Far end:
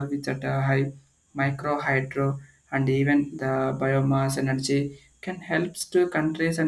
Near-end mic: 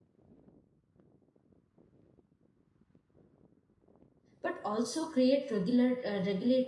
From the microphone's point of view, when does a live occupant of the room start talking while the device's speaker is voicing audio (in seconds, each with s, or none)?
4.4 s